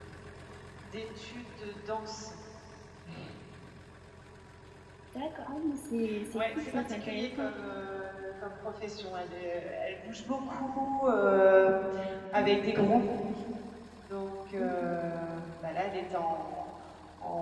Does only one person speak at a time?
No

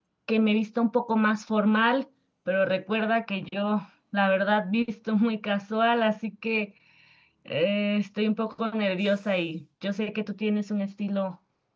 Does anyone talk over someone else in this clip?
No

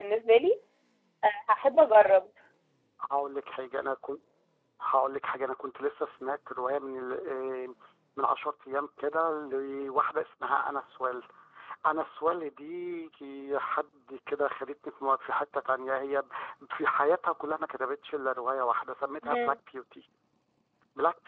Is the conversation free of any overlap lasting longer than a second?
Yes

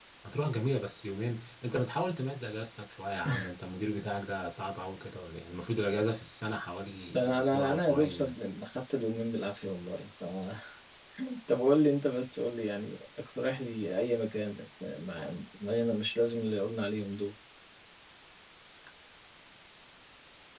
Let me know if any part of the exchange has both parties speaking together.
Yes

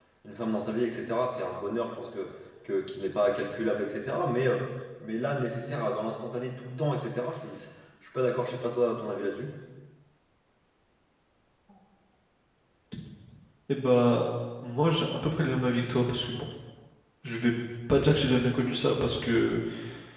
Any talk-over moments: No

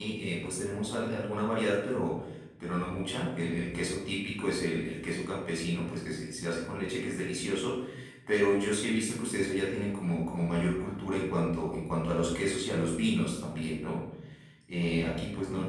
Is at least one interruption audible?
No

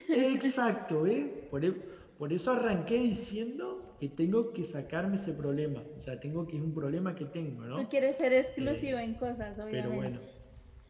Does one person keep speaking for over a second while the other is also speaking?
No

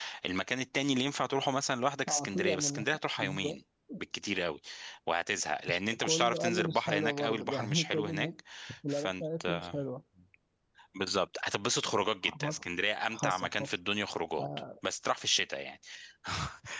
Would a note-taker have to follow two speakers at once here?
Yes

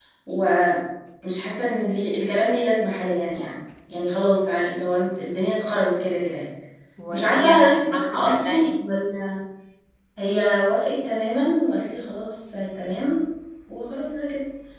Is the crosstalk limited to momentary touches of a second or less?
No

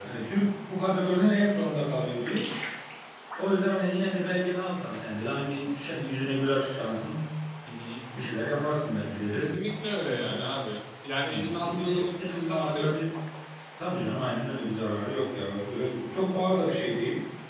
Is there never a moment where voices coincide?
No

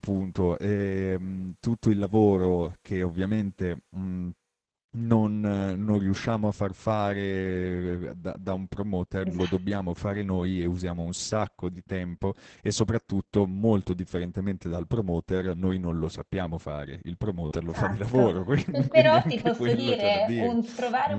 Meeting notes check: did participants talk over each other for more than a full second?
Yes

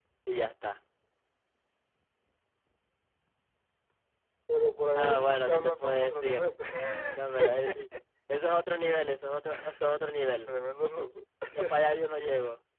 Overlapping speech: Yes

